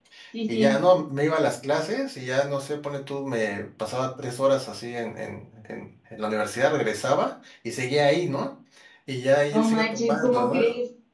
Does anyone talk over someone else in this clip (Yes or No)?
Yes